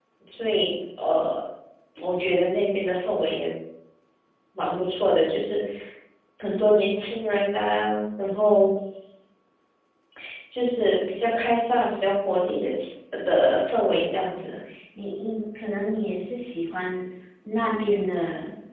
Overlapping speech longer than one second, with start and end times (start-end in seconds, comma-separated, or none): none